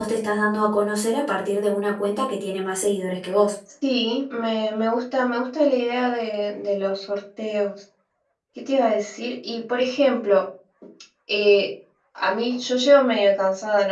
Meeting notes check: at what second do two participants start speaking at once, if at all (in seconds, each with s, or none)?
none